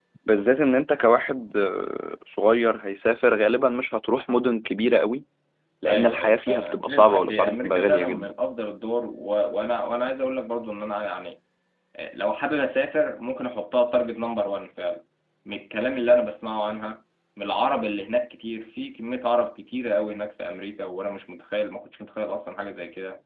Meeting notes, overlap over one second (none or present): present